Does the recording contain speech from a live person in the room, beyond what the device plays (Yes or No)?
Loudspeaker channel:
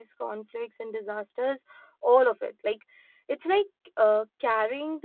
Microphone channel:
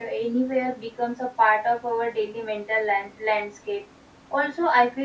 Yes